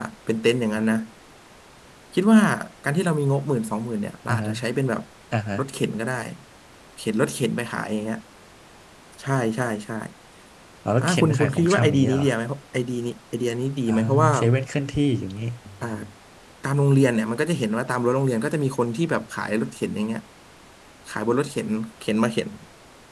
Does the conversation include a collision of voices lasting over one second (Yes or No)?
Yes